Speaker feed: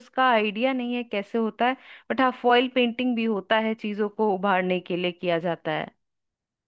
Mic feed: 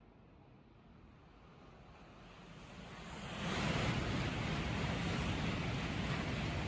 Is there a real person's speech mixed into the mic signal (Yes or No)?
No